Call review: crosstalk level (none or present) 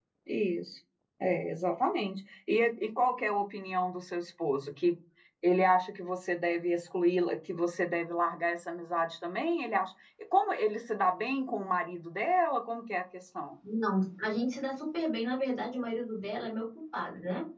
none